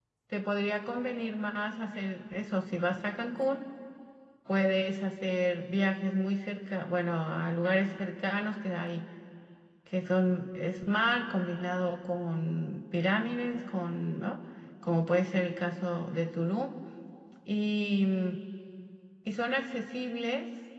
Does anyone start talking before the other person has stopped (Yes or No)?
No